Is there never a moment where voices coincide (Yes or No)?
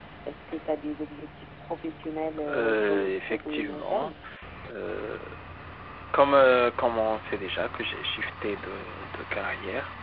No